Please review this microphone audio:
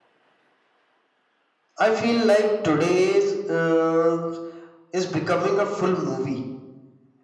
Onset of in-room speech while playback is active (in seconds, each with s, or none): none